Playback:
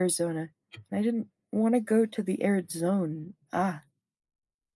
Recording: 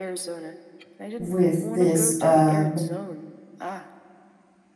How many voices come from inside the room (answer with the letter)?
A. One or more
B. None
A